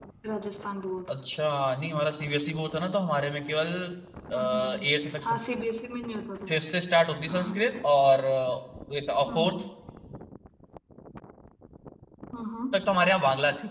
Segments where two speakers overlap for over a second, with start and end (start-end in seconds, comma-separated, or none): none